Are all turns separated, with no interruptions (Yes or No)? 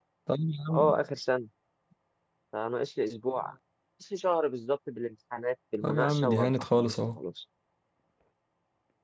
No